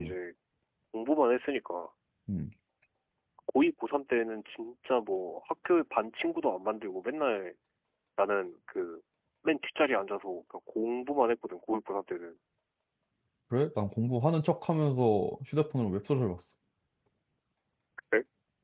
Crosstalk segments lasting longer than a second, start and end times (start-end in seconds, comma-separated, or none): none